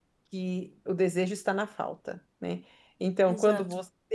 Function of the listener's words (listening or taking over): listening